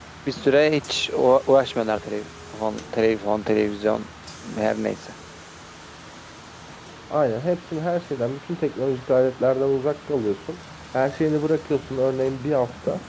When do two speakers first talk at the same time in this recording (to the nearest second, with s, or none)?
none